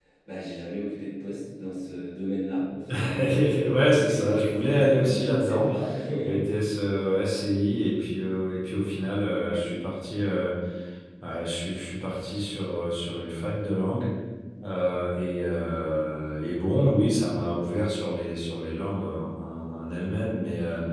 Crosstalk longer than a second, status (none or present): present